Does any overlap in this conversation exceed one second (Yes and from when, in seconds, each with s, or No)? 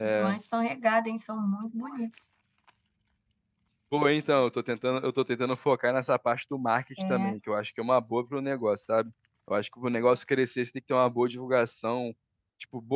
No